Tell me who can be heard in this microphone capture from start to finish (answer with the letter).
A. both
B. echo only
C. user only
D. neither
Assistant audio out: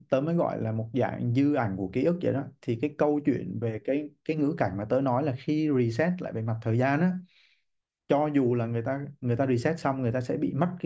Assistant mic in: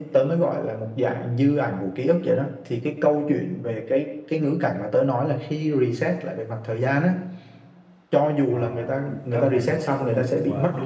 A